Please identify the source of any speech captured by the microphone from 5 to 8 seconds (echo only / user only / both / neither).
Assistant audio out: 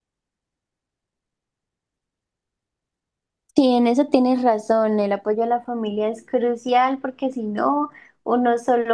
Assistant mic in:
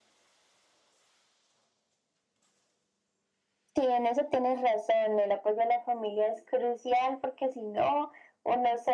echo only